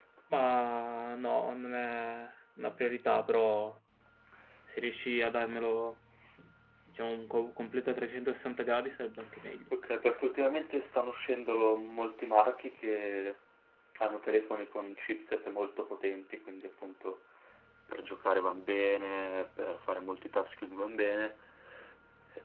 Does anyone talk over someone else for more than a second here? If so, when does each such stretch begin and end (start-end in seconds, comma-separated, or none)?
none